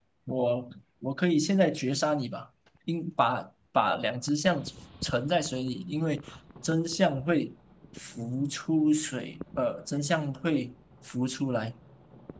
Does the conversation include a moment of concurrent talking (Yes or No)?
No